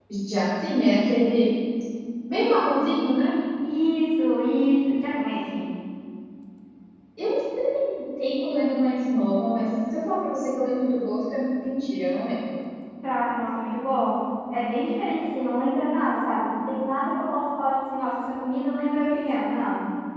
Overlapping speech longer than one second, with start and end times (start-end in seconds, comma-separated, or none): none